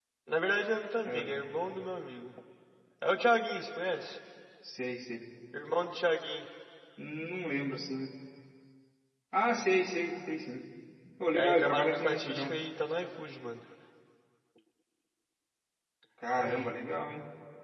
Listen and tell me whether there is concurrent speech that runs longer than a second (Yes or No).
Yes